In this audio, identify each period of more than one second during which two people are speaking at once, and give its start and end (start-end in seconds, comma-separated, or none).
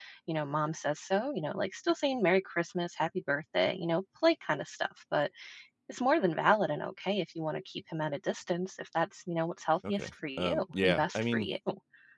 9.9-11.5